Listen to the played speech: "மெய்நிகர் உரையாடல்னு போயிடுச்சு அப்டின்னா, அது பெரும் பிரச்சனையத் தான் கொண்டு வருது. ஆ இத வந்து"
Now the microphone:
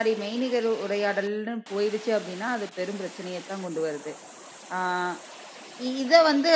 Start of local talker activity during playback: none

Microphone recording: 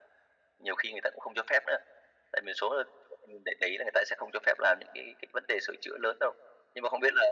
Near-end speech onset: none

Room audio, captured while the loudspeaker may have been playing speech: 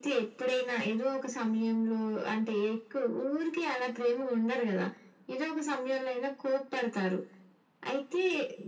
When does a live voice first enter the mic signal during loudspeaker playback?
none

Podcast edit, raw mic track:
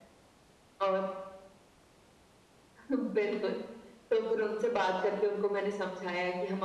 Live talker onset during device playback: none

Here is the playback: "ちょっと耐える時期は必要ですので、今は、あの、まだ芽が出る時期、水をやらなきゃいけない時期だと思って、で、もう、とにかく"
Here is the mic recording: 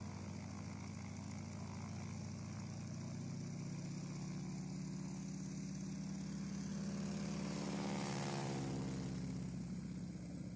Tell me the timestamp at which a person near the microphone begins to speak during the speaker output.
none

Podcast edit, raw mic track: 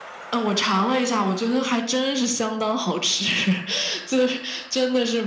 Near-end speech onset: none

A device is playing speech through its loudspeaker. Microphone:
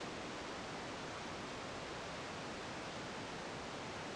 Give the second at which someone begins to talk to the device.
none

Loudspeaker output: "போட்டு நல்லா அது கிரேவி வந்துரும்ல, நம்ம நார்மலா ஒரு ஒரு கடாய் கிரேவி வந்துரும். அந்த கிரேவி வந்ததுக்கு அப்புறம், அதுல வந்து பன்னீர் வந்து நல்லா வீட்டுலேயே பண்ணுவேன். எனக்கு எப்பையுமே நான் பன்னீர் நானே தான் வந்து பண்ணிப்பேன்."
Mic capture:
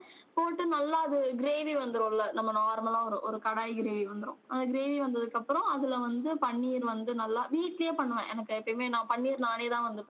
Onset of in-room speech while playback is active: none

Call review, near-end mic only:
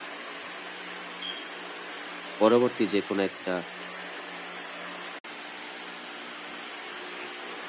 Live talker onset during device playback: 2.4 s

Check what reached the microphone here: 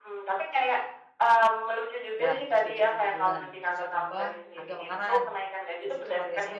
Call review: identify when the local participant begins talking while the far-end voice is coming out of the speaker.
2.2 s

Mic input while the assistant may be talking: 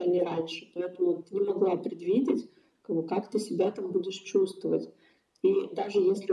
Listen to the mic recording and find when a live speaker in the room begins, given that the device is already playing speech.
none

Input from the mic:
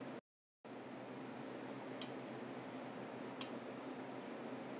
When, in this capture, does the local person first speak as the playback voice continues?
none

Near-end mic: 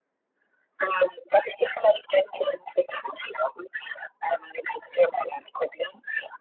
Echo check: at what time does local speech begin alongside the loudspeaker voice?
none

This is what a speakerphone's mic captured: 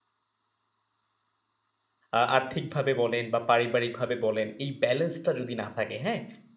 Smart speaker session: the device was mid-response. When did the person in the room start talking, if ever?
2.2 s

